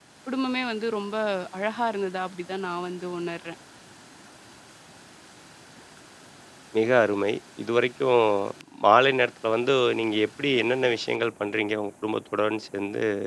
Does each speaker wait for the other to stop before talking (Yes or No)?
Yes